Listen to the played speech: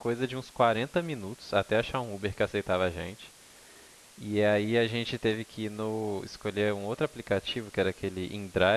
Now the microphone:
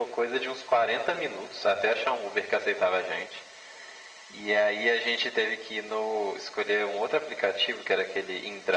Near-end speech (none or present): none